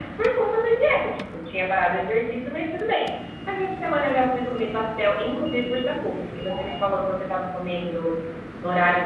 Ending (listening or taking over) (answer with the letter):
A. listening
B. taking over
A